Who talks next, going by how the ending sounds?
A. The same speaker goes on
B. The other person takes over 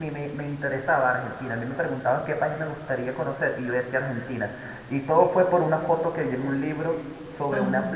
A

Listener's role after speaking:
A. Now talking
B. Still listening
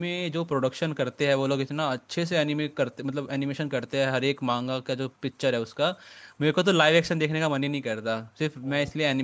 A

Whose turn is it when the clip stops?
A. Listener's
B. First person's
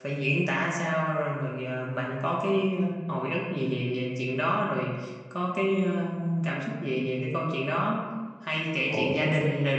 B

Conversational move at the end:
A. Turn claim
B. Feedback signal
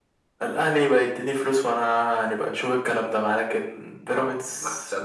A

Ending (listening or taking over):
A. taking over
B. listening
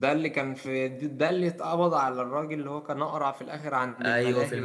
A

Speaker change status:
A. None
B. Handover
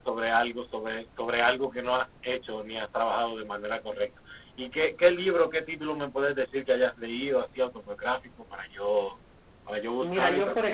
B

